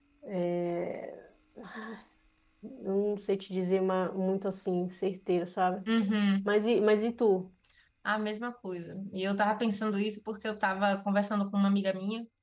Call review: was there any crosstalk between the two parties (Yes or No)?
No